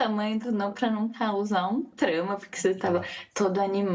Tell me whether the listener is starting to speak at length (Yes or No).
No